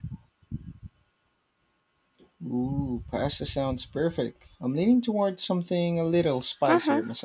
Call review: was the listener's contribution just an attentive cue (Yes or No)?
No